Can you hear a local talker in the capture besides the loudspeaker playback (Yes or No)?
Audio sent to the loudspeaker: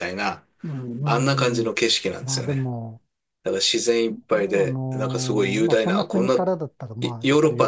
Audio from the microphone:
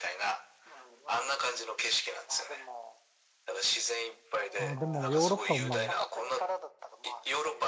Yes